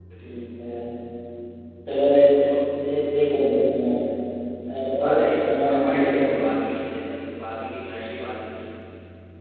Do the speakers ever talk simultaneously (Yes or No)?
Yes